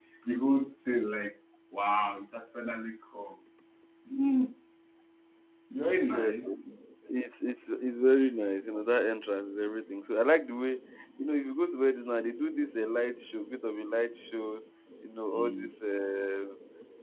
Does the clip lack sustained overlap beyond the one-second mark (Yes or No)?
Yes